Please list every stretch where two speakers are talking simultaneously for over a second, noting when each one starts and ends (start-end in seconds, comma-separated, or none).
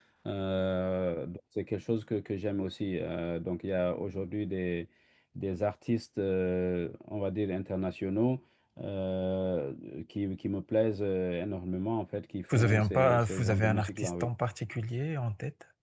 12.5-14.3